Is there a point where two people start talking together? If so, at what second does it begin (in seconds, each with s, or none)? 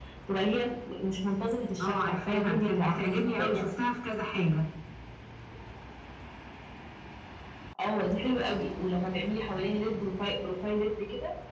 1.8 s